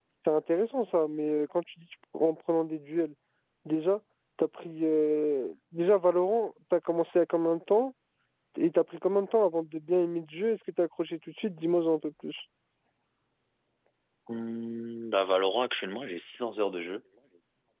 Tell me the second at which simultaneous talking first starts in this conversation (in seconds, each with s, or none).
none